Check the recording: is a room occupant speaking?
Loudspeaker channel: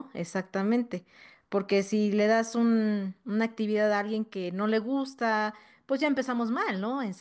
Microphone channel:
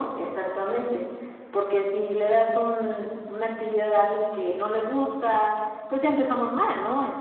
No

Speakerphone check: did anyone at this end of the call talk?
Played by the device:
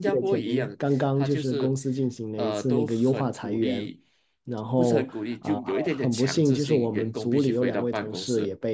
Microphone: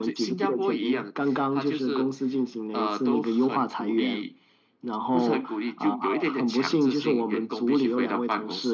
No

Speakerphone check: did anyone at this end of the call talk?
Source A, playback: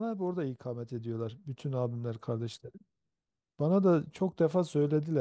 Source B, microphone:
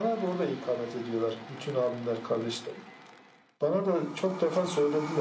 No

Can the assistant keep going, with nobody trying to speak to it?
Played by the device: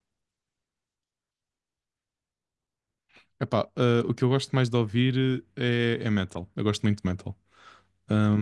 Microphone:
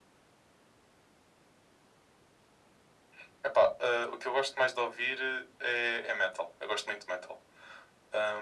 Yes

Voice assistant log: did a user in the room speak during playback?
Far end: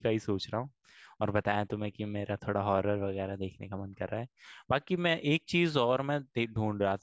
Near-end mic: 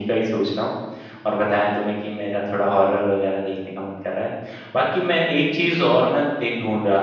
No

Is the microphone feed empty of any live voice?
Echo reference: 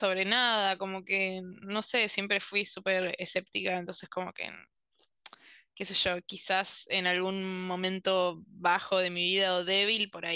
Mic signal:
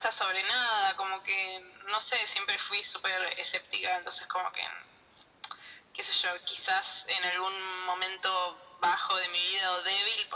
Yes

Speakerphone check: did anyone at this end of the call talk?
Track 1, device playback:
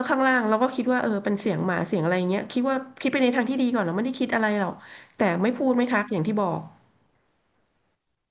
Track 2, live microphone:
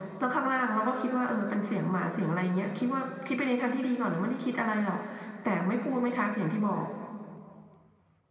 No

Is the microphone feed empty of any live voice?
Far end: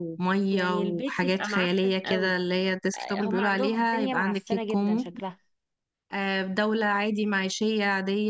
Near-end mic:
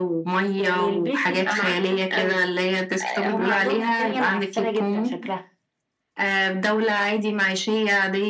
Yes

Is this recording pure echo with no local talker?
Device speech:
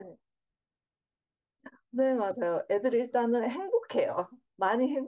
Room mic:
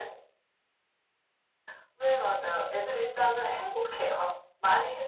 Yes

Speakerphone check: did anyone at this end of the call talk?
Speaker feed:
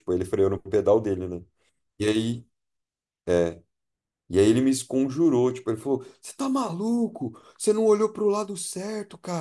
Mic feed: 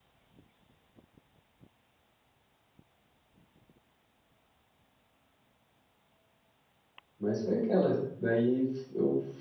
Yes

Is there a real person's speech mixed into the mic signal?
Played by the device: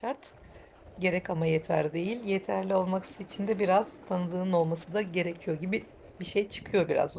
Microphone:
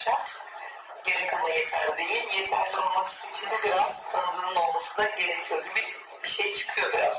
No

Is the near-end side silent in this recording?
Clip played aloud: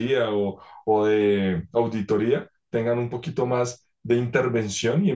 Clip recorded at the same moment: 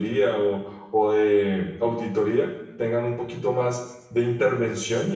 Yes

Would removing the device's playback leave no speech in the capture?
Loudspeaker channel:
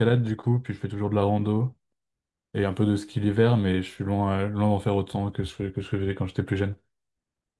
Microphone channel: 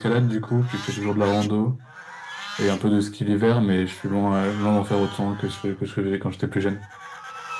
Yes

